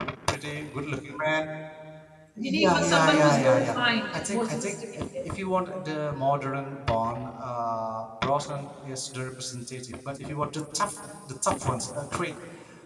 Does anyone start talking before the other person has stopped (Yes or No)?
Yes